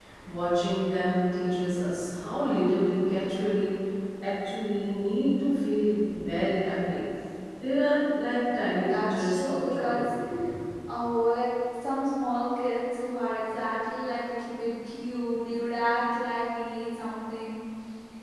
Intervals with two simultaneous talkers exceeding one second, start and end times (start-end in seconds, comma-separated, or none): 8.8-10.1